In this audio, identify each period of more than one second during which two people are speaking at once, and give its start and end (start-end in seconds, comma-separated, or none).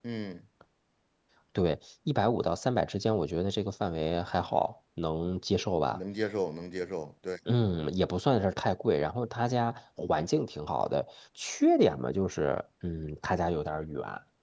none